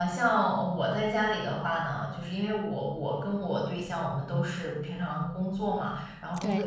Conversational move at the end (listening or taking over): listening